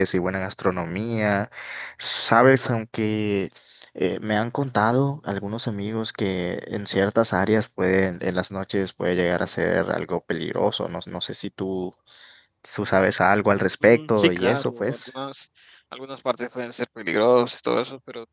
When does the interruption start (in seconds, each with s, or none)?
13.8 s